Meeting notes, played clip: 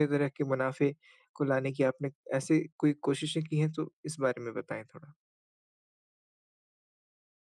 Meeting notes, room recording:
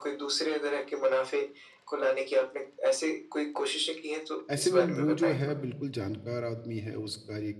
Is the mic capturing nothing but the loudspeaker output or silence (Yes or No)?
No